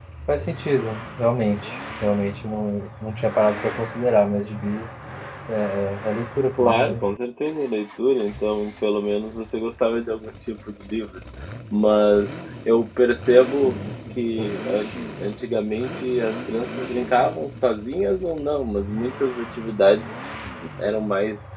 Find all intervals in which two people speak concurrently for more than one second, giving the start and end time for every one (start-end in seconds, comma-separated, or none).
none